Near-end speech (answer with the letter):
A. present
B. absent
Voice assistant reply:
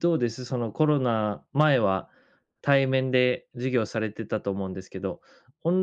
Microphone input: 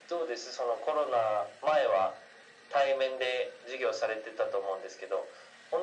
B